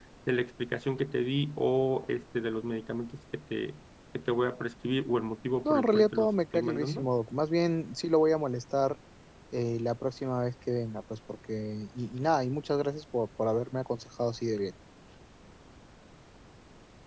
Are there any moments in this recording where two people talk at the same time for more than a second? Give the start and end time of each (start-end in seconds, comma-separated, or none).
5.7-7.1